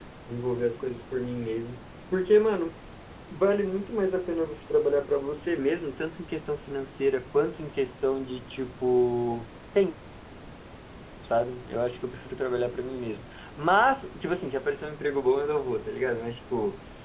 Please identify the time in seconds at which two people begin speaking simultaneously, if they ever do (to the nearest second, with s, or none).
none